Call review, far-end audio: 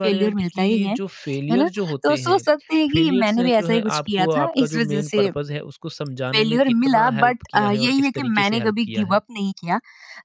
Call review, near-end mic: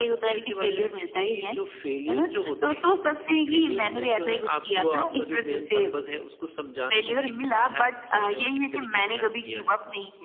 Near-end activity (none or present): none